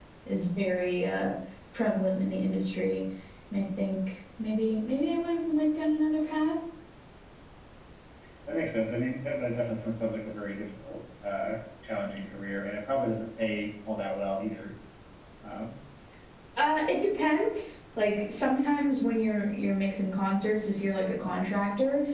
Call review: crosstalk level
none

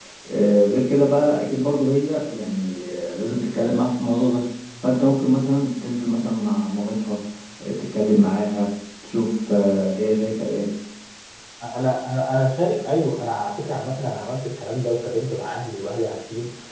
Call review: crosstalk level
none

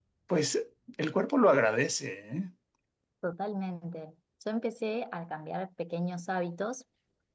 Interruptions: none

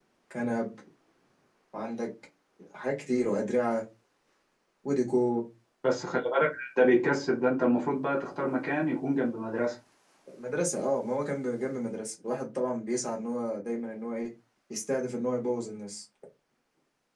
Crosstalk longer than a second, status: none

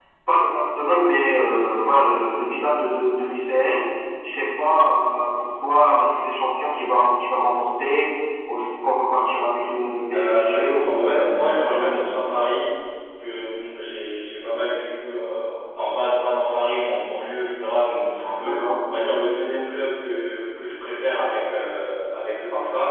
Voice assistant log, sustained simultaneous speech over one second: present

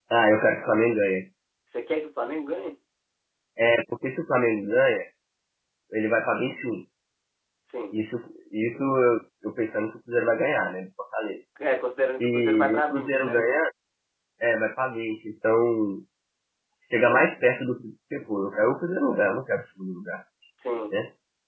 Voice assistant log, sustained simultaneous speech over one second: present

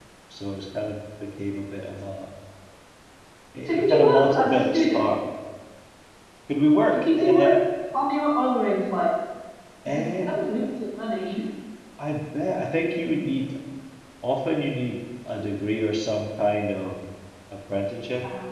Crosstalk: present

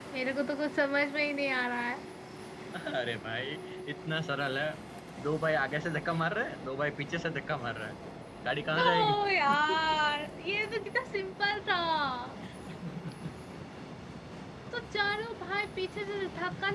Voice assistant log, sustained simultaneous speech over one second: none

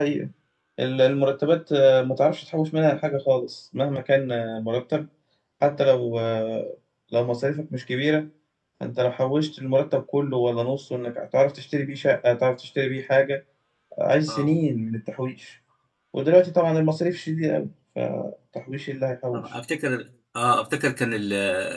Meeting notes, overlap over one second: none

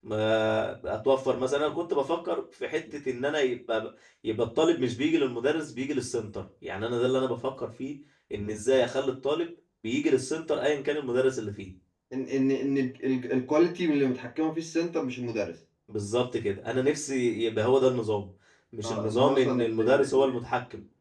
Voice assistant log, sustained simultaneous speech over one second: present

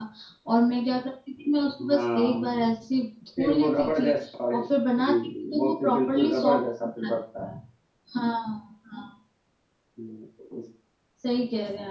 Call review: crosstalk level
present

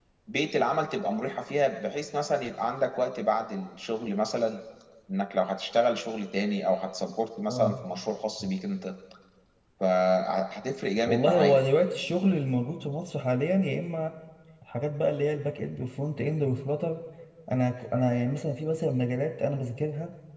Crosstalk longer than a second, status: none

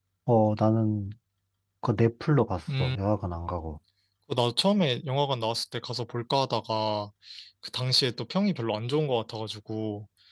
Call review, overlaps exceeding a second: none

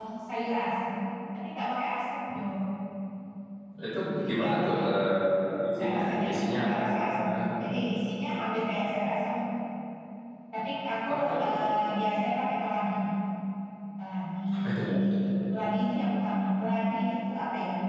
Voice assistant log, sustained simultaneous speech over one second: present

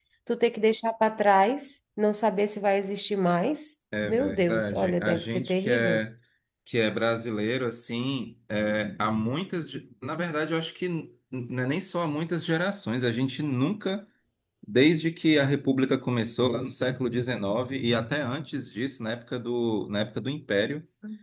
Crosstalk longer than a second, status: present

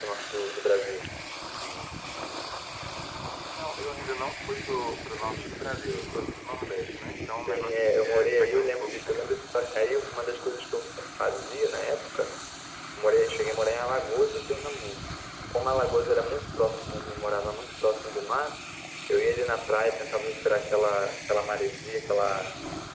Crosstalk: present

